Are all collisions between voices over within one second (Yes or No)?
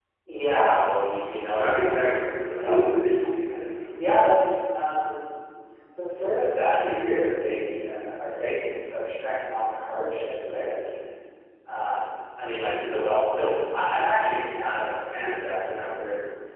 No